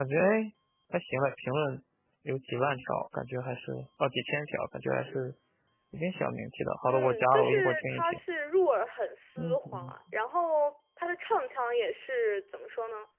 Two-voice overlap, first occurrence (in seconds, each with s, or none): 6.9 s